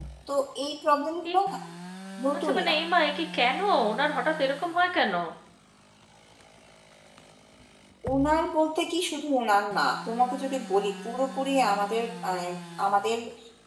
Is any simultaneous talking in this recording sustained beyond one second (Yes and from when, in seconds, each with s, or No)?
No